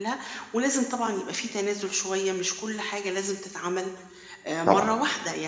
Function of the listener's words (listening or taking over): listening